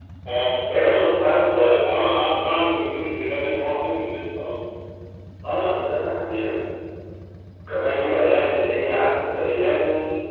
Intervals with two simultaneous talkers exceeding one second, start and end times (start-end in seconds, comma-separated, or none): none